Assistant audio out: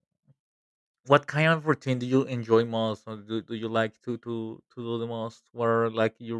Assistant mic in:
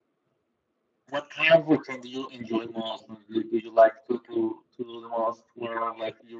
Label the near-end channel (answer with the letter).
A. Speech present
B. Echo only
B